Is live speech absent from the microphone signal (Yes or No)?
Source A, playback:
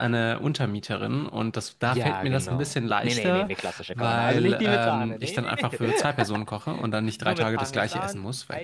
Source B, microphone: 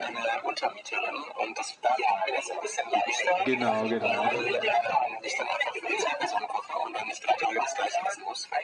No